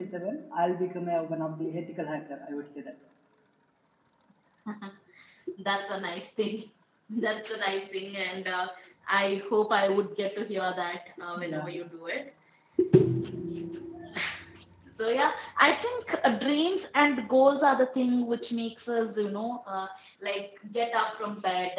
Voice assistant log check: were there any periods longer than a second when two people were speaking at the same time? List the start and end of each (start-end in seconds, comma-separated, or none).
none